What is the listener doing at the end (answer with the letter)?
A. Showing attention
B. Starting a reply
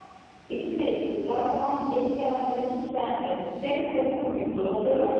B